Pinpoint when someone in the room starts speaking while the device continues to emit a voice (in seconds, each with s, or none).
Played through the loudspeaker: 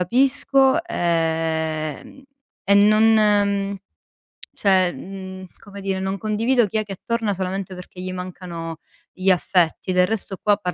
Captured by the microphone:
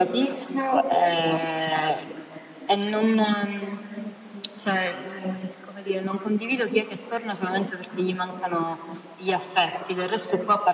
none